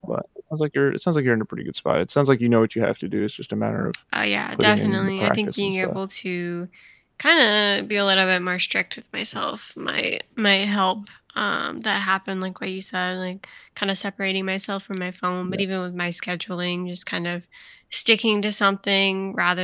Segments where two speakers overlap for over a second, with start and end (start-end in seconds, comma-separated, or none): 4.6-6.0